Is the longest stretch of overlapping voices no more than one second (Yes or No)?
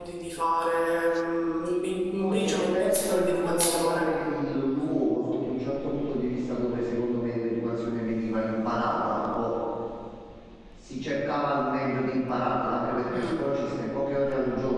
No